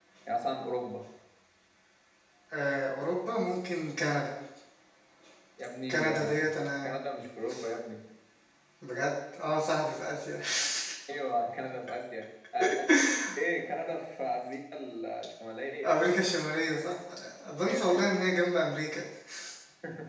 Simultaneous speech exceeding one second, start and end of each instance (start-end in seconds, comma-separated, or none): none